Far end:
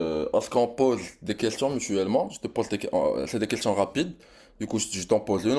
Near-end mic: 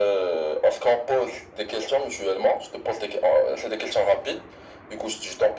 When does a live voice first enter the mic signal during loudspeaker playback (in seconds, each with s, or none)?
none